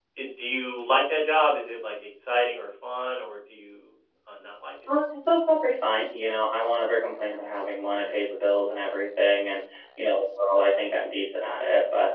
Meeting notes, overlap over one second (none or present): none